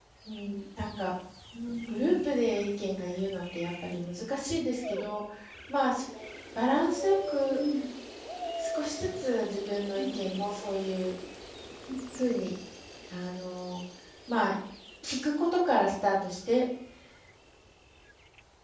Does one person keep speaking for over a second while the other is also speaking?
No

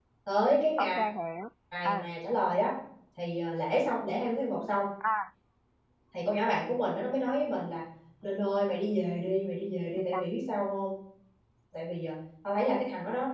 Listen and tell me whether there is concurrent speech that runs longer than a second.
No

